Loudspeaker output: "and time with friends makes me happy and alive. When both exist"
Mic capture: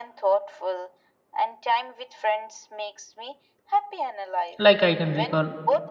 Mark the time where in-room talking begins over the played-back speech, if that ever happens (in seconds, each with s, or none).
4.6 s